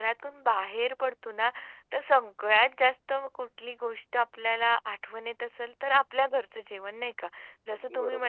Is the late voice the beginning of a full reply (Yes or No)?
No